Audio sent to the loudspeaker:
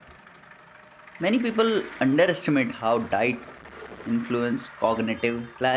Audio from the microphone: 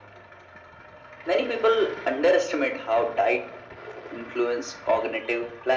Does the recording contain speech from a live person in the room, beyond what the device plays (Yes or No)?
No